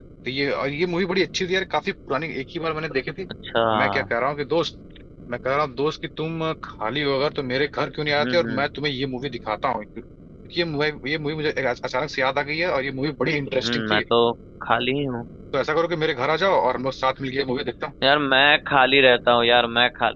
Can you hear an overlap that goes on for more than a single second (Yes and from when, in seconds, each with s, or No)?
No